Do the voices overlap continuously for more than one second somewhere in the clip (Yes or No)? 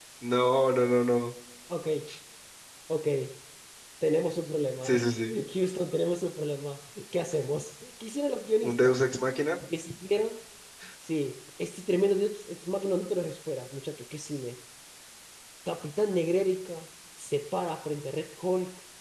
No